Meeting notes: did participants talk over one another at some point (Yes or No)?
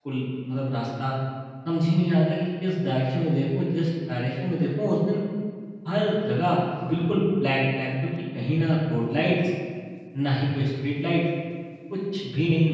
No